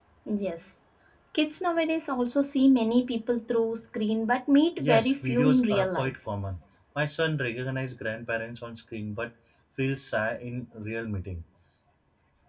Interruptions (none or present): present